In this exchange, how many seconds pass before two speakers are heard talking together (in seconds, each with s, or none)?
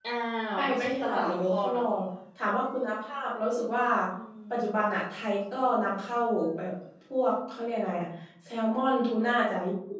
0.6 s